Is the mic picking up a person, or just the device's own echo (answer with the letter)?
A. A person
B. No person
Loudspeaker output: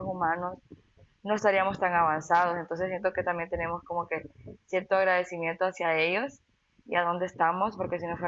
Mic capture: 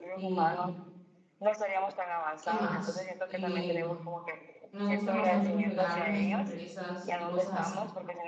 A